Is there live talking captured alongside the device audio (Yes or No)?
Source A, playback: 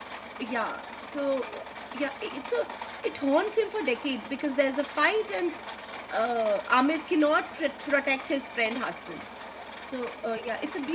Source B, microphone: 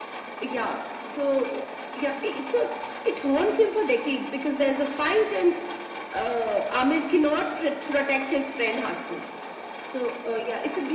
No